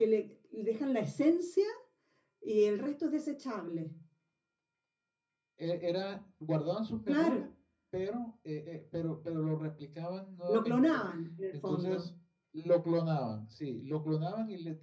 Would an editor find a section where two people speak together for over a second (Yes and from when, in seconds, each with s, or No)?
No